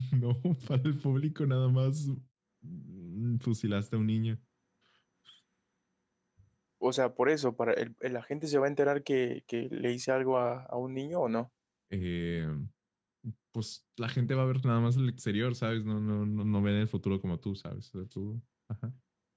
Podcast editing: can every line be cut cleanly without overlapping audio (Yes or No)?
Yes